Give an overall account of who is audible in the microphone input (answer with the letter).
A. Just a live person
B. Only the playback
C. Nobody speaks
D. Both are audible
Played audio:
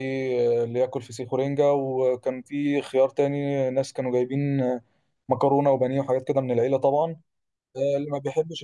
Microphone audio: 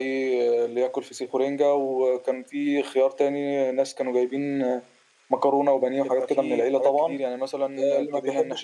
D